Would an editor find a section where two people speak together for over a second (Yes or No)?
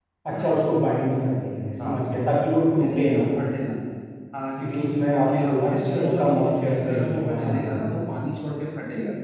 Yes